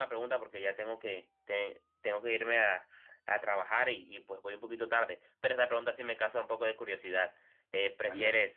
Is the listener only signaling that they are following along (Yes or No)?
Yes